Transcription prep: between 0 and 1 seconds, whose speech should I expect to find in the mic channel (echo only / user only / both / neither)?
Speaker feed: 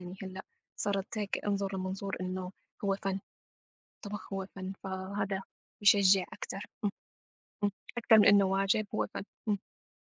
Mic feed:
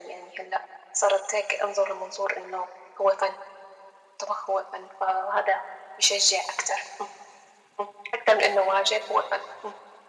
echo only